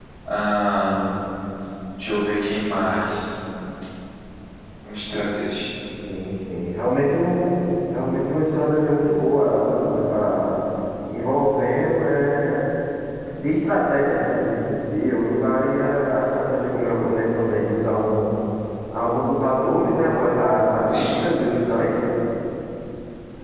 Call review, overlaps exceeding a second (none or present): none